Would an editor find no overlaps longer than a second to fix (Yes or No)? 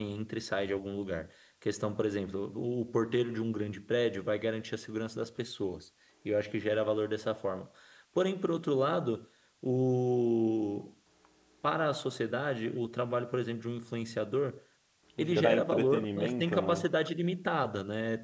No